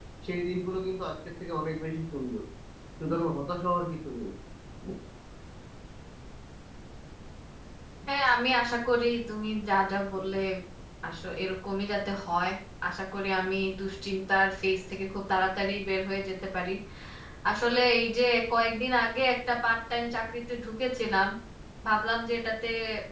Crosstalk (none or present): none